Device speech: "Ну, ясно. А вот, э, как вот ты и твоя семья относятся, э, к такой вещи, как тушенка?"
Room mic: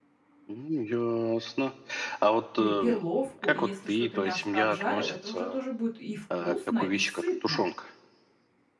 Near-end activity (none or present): present